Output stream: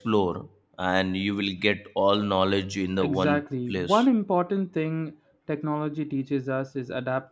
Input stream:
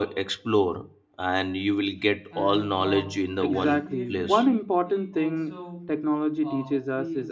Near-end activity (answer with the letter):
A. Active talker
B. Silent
A